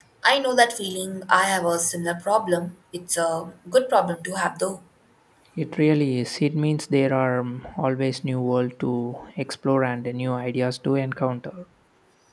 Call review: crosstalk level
none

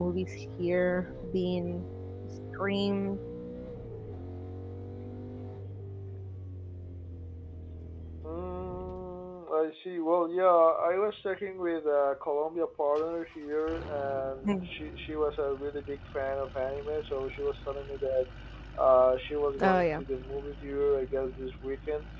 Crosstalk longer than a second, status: none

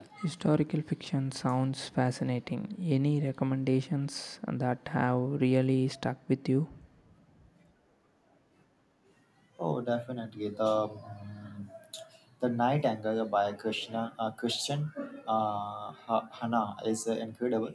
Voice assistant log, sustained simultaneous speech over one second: none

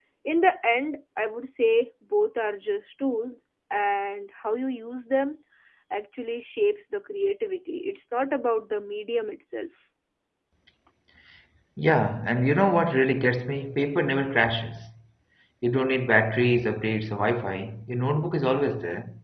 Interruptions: none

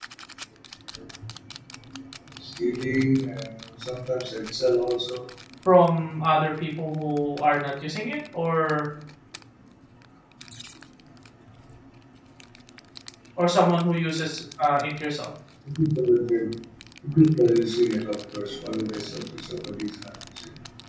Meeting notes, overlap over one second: none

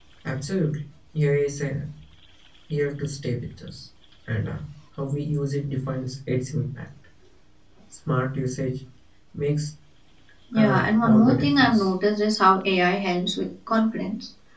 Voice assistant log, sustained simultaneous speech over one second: present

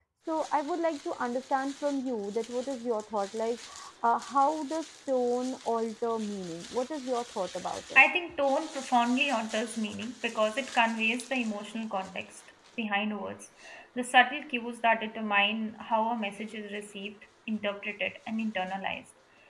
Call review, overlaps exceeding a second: none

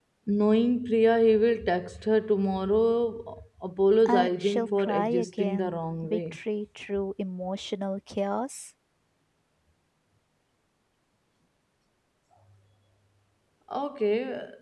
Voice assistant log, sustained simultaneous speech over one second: present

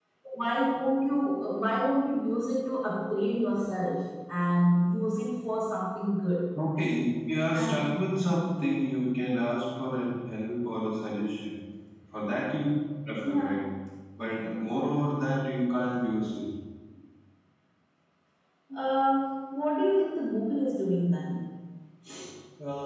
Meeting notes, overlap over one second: none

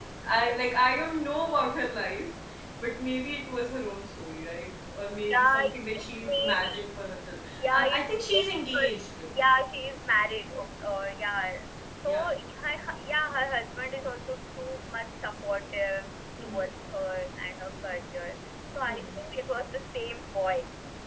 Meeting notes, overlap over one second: present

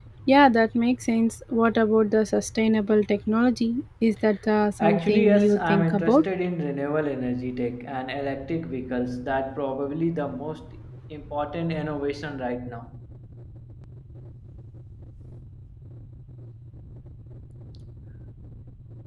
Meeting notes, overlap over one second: present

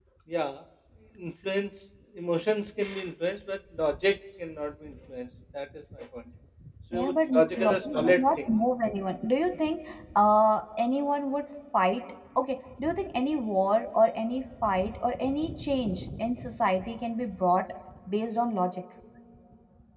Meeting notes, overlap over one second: present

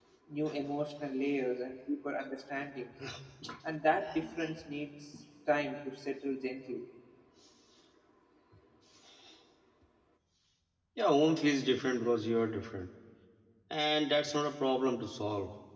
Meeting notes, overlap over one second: none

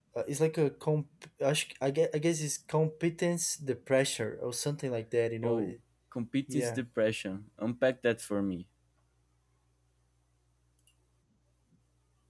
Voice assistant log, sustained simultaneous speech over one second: none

